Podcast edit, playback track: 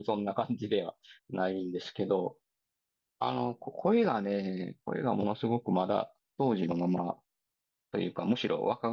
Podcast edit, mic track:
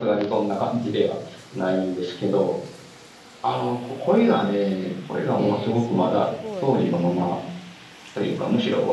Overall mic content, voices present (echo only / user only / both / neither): both